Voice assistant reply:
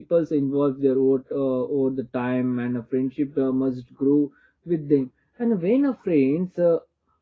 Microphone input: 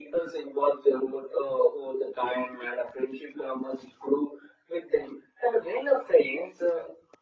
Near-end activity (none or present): none